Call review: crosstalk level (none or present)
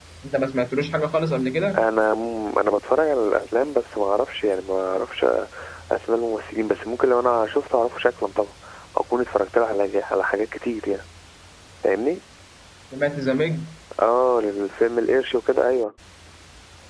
none